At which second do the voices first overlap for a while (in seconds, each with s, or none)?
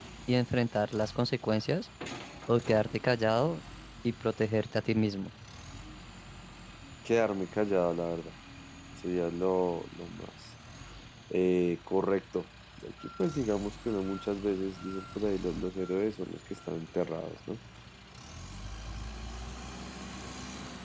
none